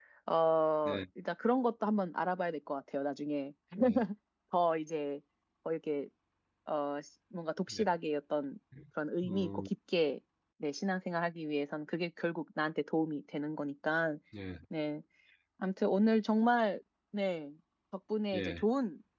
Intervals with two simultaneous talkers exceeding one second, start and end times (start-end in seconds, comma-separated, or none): none